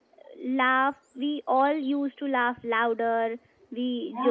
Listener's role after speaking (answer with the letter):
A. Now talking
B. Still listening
B